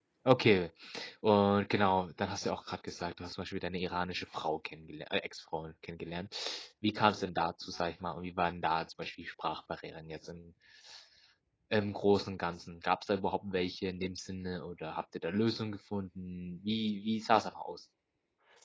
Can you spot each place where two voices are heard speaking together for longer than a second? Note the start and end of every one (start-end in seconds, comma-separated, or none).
none